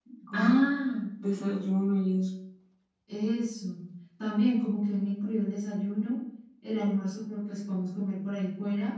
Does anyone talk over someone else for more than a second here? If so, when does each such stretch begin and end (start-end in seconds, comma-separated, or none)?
none